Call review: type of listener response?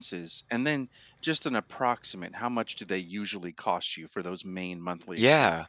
taking over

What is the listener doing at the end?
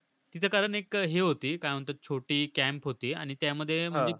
listening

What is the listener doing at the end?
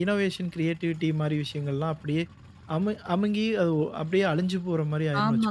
taking over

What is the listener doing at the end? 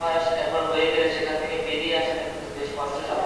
taking over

